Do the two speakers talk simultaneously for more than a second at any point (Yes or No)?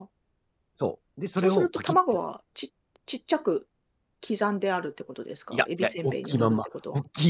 Yes